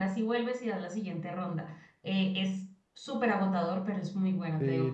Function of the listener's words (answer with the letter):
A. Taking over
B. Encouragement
A